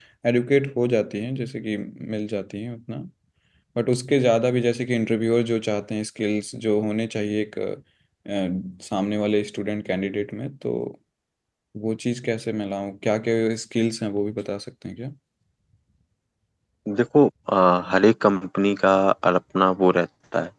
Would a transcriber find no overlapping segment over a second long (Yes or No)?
Yes